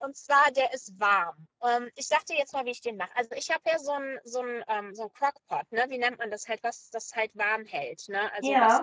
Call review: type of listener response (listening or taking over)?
listening